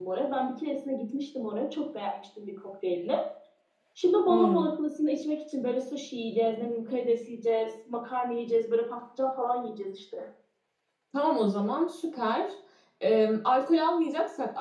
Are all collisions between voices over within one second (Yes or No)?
Yes